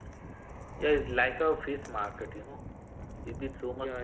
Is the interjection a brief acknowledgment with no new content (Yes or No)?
Yes